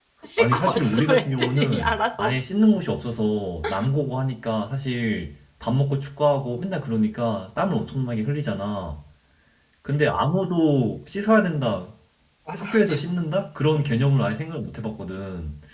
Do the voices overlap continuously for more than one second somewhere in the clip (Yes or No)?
Yes